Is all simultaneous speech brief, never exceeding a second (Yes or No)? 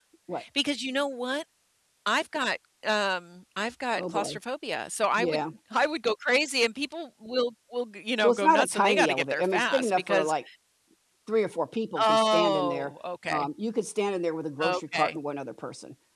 No